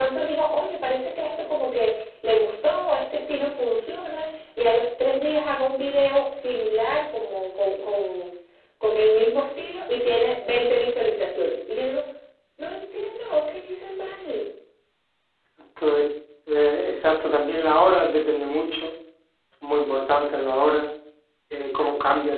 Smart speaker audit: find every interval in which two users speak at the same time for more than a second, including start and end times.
none

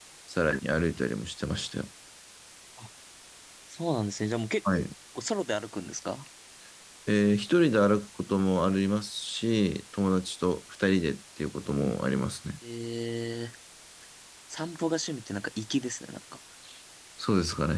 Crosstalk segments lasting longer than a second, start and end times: none

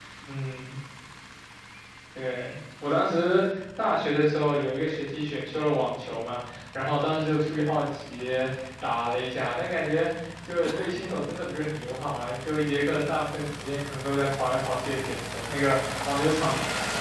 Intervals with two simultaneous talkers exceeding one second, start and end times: none

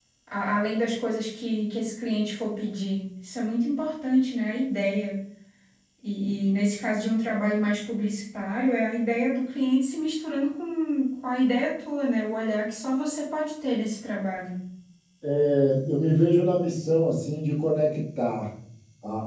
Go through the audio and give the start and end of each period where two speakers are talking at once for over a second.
none

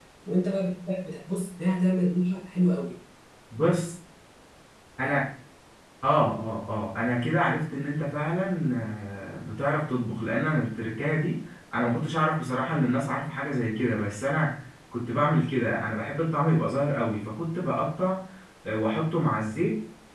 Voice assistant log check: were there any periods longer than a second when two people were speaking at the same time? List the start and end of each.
none

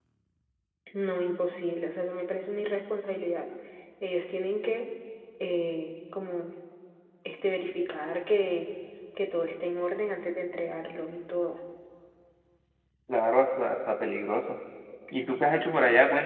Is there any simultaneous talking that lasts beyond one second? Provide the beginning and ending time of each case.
none

